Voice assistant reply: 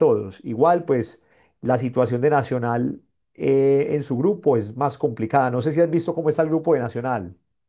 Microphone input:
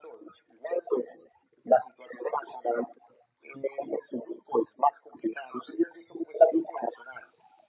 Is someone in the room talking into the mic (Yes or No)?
No